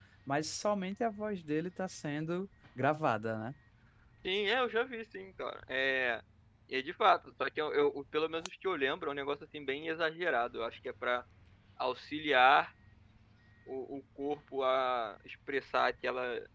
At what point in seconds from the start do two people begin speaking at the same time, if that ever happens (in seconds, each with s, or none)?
none